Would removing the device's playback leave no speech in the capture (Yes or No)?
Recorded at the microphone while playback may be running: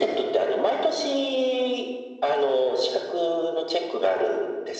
Yes